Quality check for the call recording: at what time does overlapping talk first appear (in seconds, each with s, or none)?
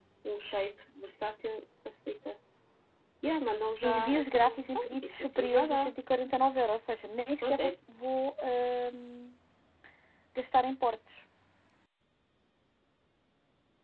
3.8 s